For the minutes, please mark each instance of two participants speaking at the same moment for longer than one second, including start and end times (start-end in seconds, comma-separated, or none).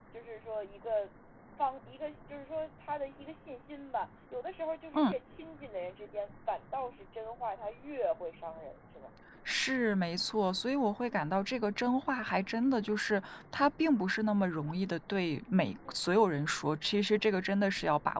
none